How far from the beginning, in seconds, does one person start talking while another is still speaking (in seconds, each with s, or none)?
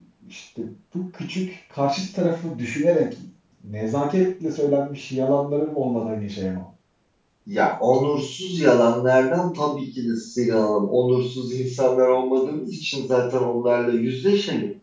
none